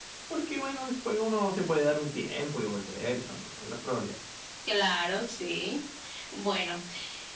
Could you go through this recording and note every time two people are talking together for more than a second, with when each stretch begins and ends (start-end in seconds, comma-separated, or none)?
none